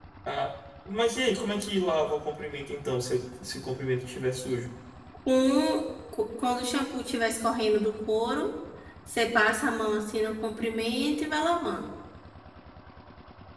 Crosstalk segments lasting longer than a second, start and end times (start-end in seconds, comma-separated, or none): none